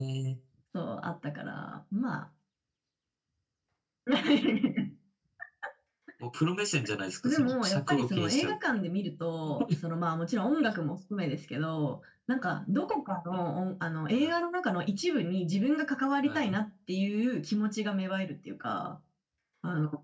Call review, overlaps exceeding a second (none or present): present